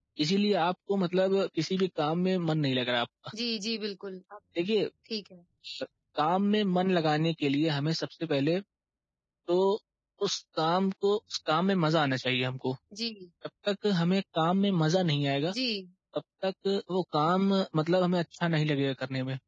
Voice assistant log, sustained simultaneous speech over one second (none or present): none